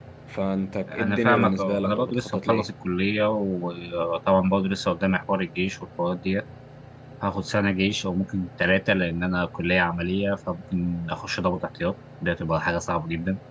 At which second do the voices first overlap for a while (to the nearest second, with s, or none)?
1 s